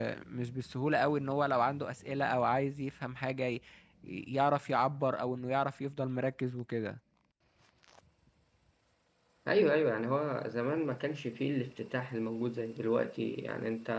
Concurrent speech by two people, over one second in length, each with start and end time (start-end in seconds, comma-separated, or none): none